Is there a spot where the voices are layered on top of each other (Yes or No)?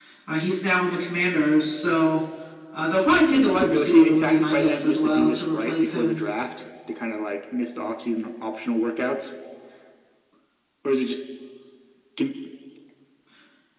Yes